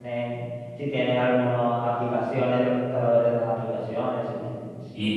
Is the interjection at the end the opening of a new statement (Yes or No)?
Yes